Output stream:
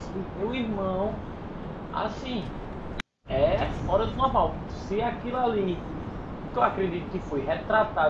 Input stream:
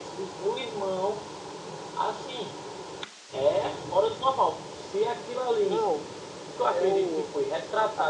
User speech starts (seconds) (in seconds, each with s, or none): 5.6 s